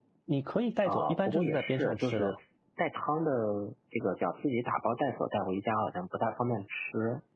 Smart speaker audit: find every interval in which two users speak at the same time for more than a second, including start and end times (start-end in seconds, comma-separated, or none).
0.8-2.4